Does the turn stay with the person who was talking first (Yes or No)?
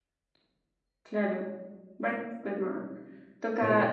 Yes